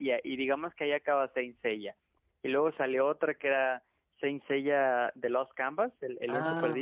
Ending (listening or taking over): taking over